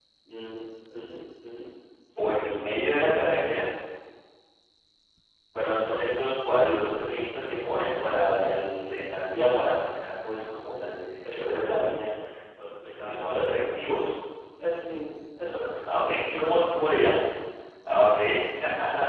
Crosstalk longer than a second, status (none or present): present